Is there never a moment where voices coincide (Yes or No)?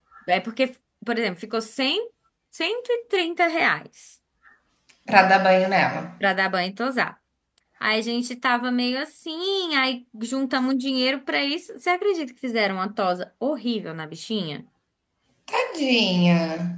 Yes